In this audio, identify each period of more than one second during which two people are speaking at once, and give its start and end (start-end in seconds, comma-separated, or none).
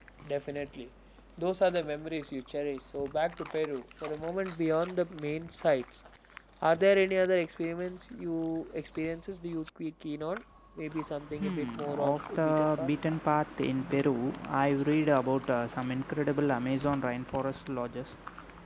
11.4-12.9